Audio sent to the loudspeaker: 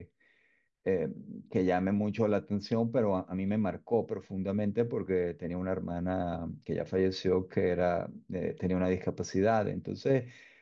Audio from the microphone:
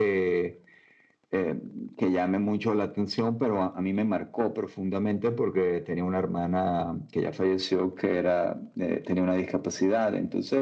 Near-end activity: none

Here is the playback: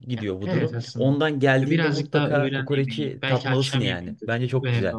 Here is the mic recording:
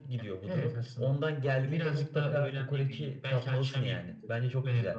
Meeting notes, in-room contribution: none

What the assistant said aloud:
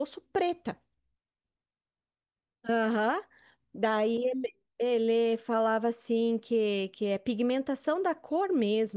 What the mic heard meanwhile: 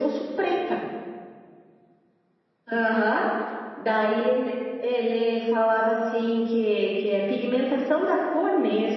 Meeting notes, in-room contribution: none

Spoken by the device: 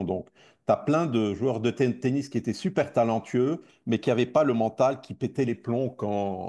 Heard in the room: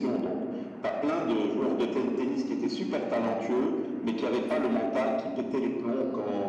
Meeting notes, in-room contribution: none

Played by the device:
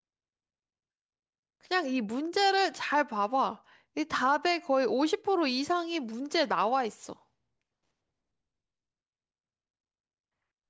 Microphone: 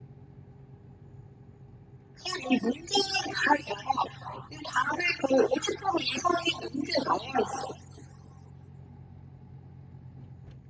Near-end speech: none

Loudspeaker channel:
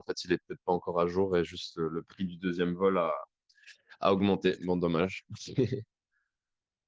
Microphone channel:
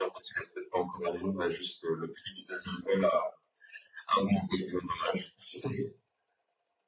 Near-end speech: none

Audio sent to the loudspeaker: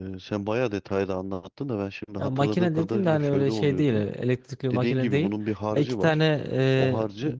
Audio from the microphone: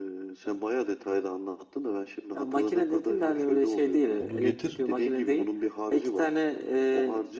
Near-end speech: present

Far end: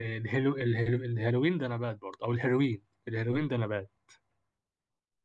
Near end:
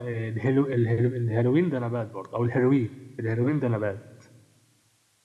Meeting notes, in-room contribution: none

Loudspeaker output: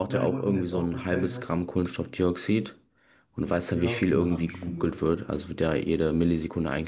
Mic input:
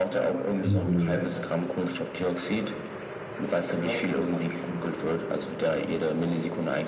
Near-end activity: present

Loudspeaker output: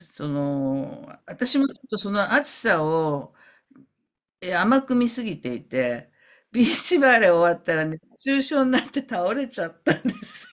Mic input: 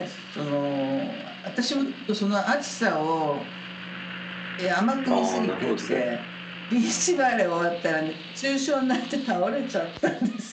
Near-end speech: present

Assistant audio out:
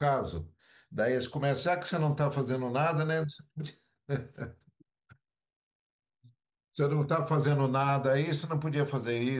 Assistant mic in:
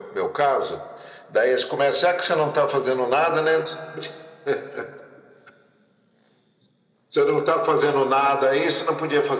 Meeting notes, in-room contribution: none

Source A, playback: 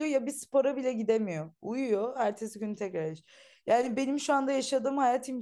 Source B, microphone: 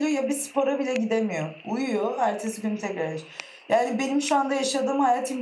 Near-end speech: none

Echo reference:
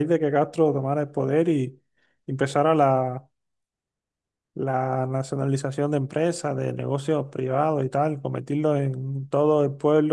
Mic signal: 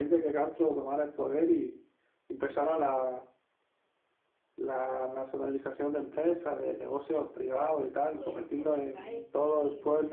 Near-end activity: present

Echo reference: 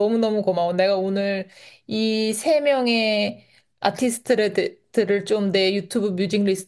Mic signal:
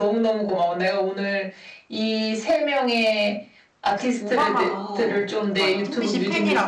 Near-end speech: present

